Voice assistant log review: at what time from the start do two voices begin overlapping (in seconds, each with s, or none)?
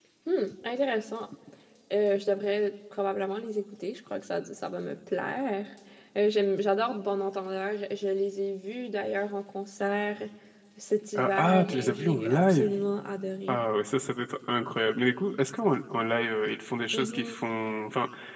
11.2 s